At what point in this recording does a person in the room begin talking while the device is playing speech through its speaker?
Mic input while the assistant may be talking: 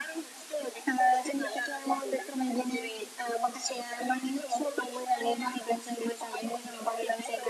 none

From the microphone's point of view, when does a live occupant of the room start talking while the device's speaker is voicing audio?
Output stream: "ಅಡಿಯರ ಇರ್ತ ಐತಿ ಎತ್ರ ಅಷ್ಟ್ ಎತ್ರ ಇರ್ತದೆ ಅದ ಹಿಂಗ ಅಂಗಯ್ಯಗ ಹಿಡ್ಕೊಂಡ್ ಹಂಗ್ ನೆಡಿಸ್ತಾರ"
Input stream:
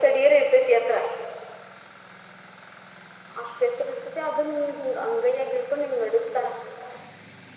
none

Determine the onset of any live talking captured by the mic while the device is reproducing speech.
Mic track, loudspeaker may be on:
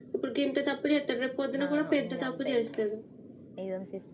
1.6 s

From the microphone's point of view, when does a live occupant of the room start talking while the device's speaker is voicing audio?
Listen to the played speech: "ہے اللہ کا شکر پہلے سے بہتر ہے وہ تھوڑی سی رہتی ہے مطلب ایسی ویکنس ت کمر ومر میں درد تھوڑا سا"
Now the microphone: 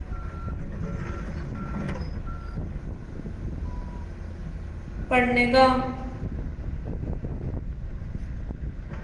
5.1 s

